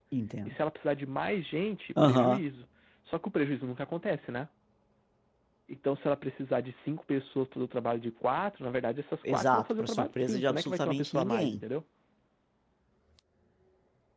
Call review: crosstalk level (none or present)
present